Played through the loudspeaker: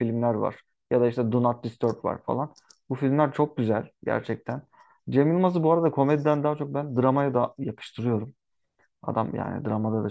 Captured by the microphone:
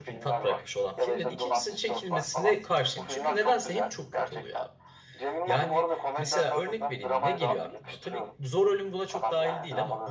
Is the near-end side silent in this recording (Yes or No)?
No